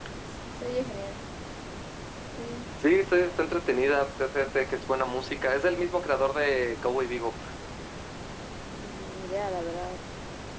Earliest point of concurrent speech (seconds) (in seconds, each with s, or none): none